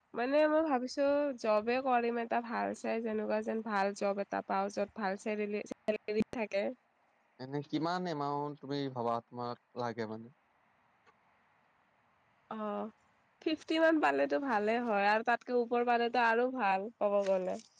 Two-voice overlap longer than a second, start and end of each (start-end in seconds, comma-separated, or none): none